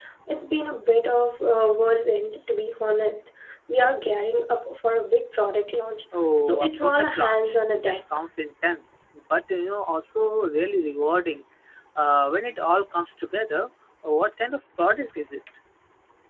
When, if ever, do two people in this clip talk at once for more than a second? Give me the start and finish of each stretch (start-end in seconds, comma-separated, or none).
6.4-8.0